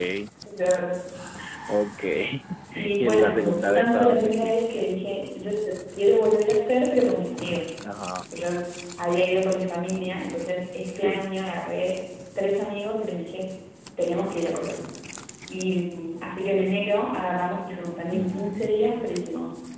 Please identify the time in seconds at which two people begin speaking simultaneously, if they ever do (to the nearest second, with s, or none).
3 s